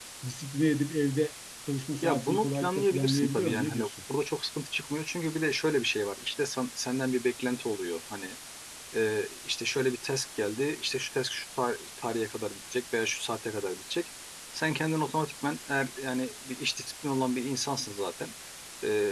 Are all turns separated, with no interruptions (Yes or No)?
No